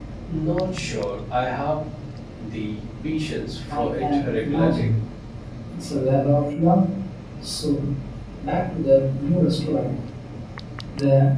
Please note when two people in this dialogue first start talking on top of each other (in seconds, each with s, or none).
3.7 s